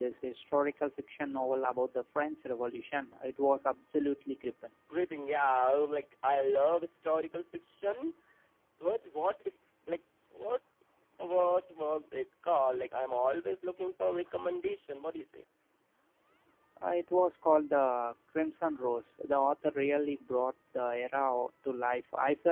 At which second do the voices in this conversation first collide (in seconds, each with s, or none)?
none